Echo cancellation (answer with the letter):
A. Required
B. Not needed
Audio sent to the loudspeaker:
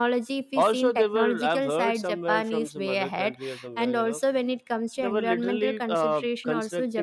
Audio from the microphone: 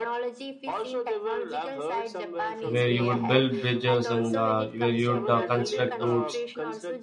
A